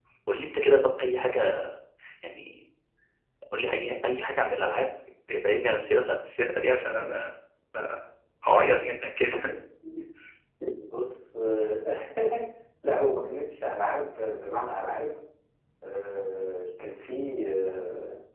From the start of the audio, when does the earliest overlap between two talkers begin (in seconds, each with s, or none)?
none